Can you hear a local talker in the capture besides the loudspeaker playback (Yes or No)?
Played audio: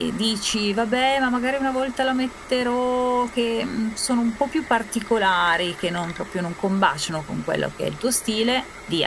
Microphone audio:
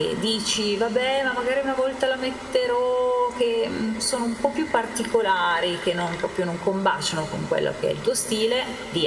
No